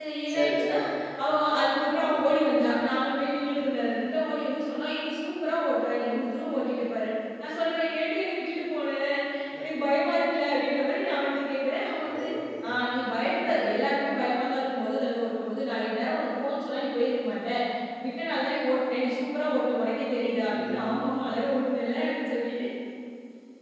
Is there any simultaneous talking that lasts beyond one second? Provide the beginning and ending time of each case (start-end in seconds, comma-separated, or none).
none